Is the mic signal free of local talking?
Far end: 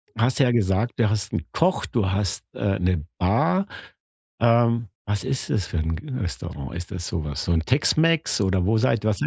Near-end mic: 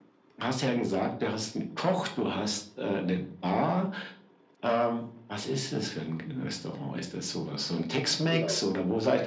No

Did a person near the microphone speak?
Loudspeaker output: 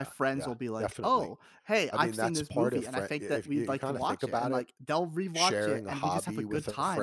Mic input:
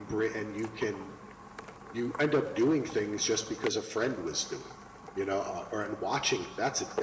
Yes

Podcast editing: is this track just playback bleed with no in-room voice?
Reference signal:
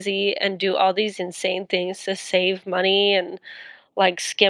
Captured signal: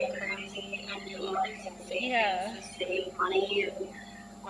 No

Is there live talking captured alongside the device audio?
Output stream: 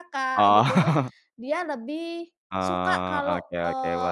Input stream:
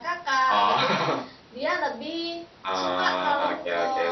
Yes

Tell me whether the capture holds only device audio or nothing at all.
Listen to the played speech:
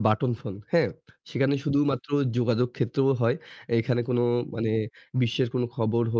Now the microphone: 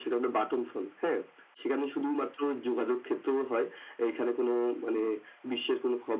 Yes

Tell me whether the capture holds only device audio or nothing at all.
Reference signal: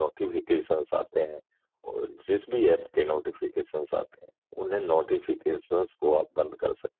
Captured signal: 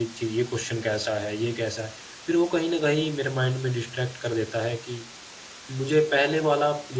No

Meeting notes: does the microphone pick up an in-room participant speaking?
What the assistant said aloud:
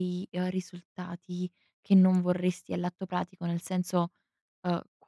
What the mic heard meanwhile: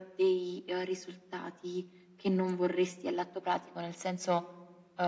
No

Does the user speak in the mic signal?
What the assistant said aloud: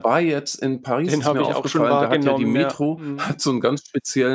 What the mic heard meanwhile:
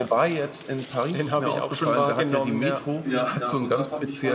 Yes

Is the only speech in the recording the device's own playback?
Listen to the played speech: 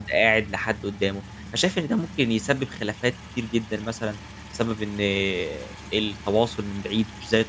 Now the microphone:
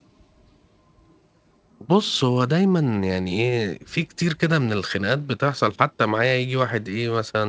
No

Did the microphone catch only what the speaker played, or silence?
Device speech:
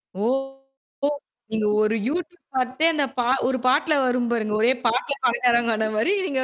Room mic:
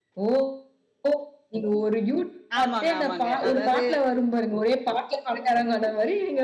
No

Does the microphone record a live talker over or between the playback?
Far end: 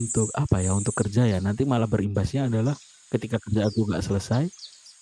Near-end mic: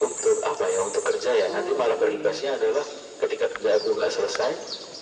Yes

